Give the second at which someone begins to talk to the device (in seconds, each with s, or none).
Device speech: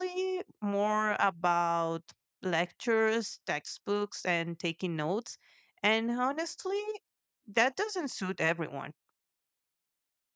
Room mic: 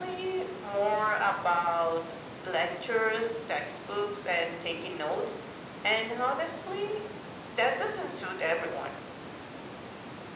none